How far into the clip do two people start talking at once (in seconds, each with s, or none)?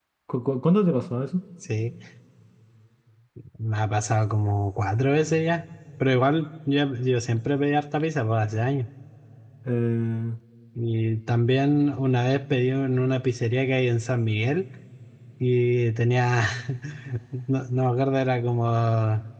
none